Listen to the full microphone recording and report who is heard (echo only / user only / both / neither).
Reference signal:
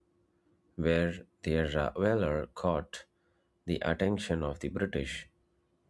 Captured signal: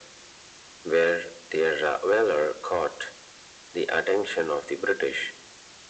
echo only